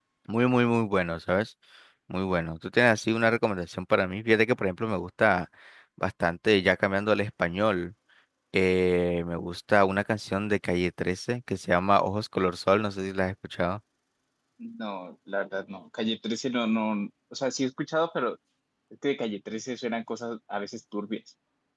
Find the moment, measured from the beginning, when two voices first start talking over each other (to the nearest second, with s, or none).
none